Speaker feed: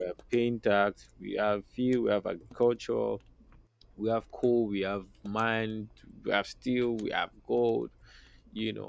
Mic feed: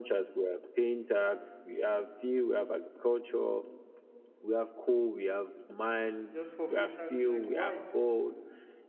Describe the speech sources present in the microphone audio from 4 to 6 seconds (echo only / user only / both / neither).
echo only